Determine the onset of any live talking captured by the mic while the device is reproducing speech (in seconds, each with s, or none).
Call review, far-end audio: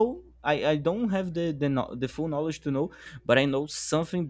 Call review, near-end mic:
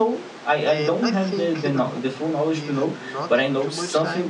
0.7 s